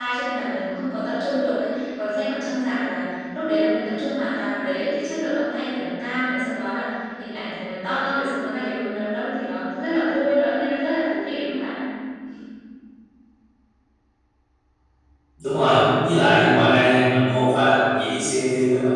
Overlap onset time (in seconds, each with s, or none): none